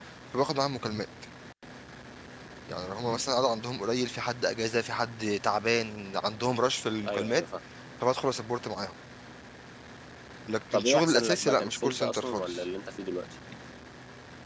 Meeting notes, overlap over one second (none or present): present